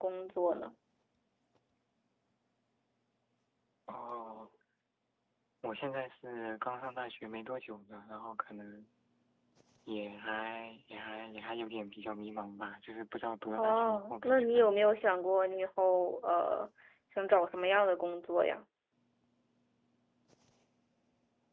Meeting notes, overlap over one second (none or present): present